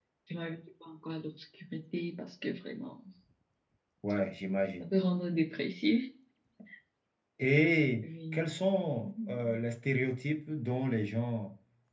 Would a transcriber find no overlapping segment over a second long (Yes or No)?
Yes